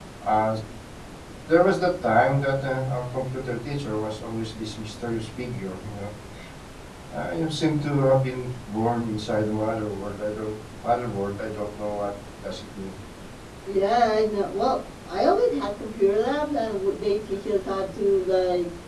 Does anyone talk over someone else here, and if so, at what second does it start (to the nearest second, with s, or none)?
none